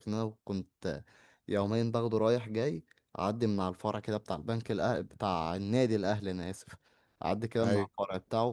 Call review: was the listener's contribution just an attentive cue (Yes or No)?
Yes